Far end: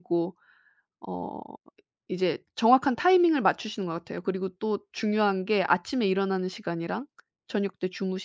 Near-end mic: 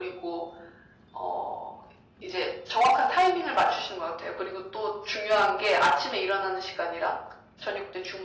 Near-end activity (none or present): none